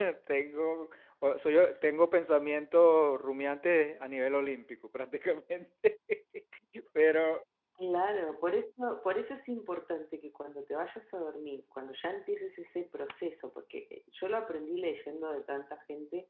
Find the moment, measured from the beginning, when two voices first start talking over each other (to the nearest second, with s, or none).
none